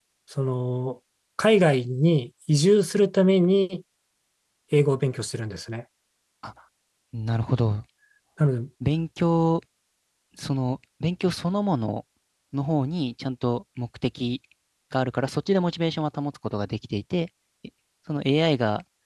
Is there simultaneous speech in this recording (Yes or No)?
No